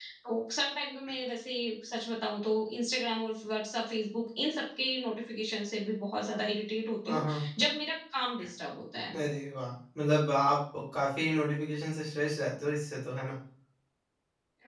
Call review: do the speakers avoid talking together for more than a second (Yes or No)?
Yes